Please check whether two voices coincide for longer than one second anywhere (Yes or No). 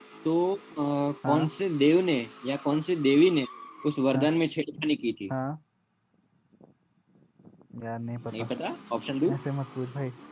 No